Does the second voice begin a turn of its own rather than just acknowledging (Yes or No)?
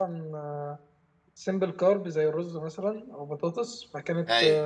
No